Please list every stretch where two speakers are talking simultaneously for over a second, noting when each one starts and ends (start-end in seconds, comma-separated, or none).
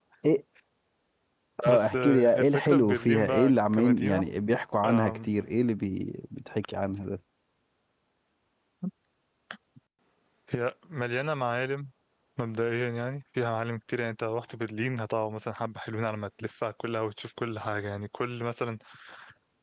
1.6-4.2